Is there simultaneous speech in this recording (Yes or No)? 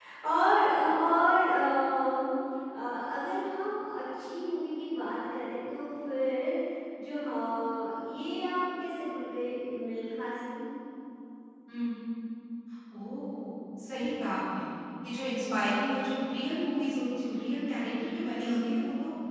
No